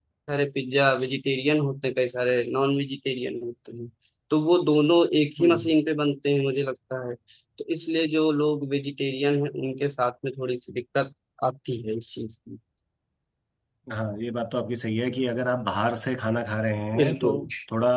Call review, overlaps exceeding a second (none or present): none